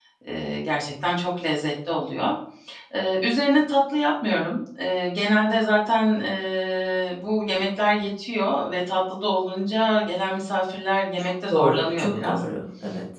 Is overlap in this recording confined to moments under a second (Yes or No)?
No